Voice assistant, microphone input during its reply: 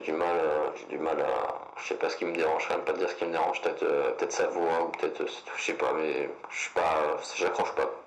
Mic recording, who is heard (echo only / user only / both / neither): echo only